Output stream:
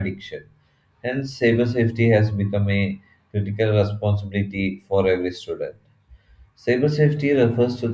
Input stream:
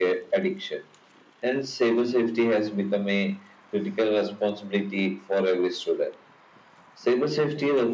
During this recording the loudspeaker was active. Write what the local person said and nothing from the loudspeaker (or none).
none